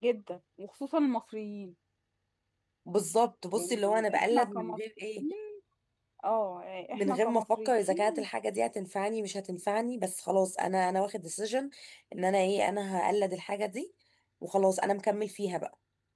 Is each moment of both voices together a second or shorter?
No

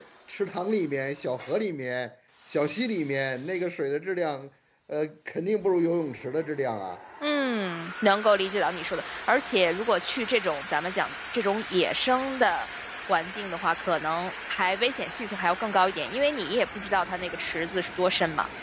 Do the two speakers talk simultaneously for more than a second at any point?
No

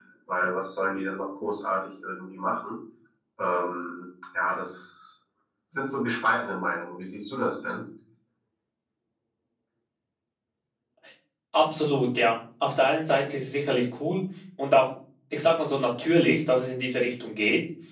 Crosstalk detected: No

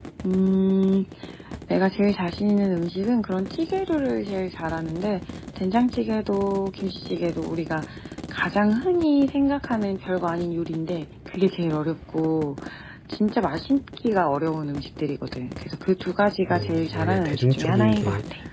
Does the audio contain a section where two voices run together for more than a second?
Yes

